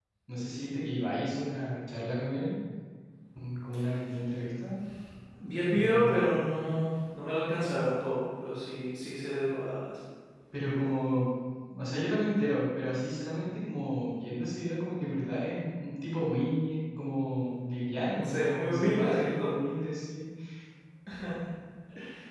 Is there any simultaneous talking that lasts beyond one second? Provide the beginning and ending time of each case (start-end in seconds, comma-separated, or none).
18.2-19.6